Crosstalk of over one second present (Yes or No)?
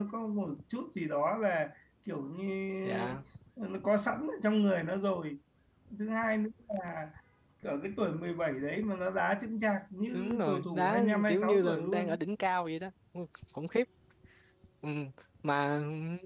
Yes